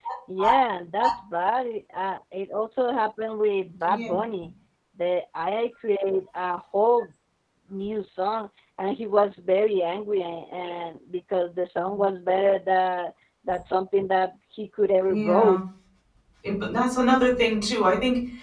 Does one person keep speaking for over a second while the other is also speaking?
No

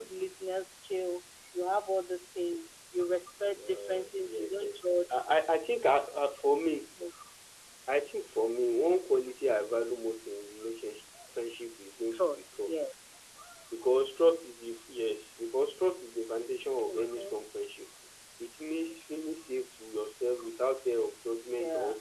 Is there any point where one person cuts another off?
Yes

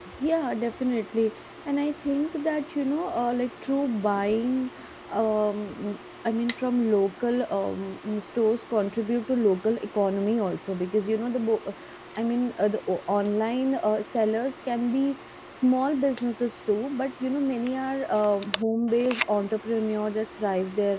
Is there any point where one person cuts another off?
No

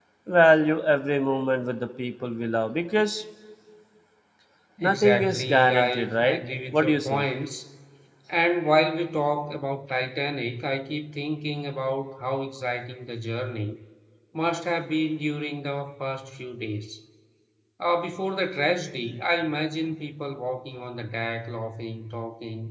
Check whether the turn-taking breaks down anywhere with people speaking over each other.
Yes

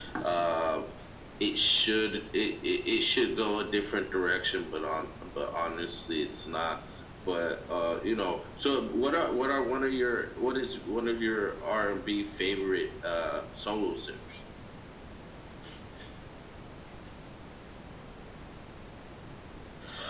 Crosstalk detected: No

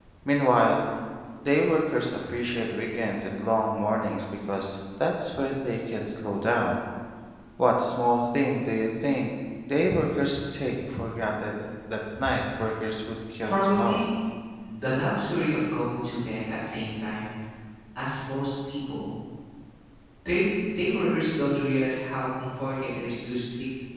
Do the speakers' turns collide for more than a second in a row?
No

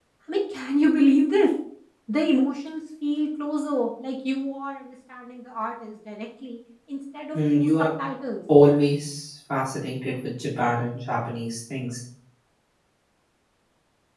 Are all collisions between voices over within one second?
Yes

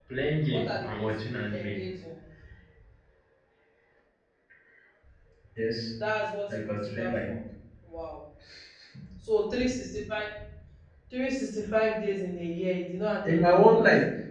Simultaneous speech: Yes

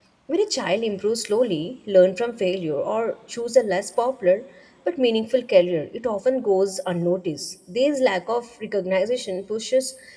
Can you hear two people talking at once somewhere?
No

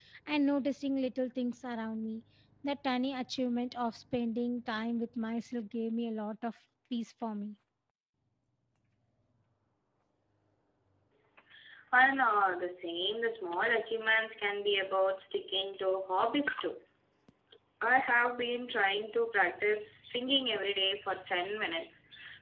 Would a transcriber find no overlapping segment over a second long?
Yes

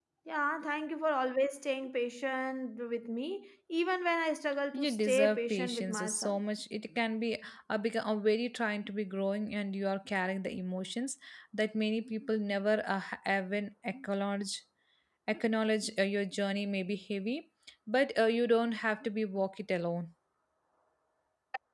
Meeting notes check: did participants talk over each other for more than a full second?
Yes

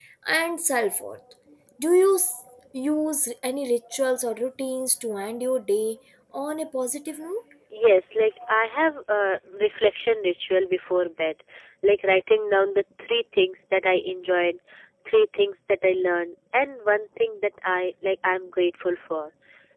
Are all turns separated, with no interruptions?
Yes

